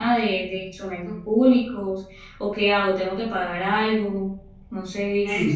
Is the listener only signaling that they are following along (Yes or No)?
No